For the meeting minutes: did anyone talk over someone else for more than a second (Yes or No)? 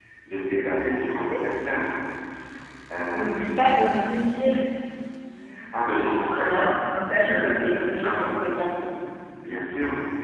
Yes